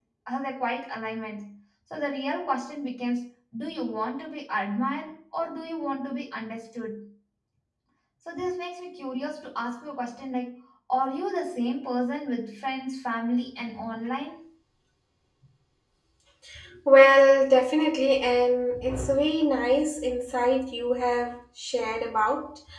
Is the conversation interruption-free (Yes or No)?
Yes